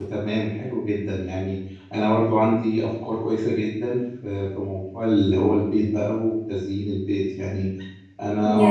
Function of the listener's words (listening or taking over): listening